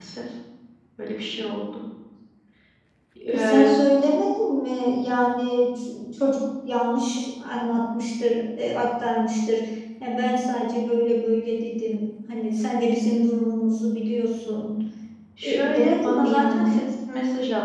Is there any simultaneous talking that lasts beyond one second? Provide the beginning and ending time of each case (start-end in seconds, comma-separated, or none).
15.4-16.8